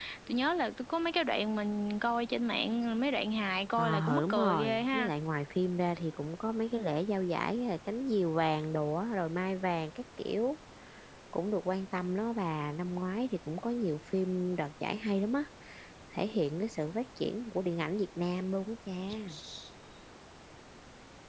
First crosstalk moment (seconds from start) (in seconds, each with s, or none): 3.8 s